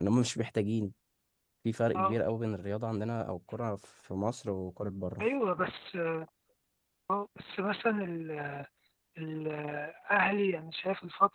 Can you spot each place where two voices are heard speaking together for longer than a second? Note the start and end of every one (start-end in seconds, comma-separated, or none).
none